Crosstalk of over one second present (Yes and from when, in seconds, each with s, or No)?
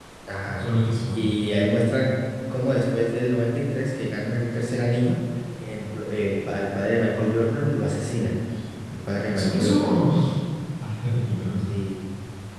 No